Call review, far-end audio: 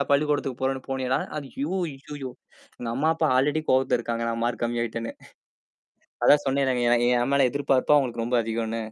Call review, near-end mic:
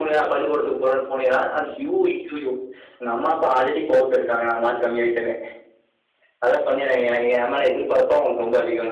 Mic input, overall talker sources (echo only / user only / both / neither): echo only